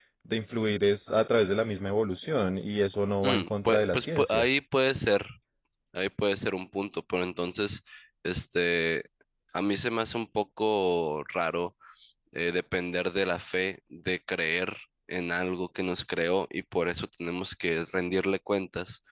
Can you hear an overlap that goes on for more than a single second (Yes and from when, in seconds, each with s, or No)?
Yes, from 3.2 s